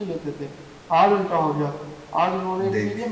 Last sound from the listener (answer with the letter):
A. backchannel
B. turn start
A